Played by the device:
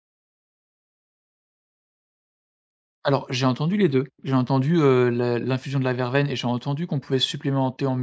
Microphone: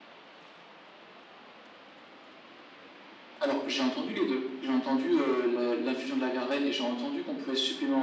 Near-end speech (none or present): none